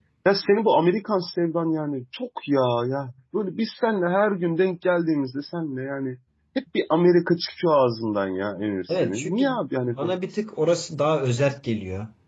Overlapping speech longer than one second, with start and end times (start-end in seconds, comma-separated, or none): 8.9-10.1